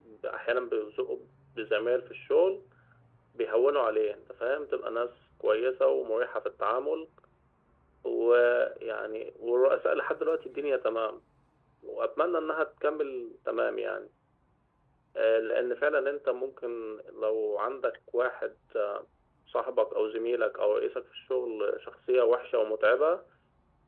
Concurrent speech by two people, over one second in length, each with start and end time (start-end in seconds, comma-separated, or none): none